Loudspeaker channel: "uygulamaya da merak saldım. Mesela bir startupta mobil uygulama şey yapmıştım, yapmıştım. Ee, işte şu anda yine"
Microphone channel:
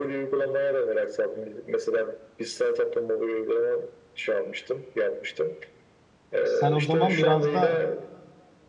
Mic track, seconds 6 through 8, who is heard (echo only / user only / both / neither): both